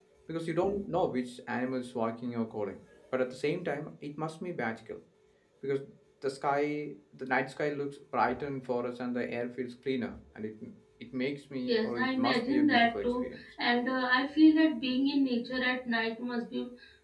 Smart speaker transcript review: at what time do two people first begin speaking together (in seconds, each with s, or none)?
11.7 s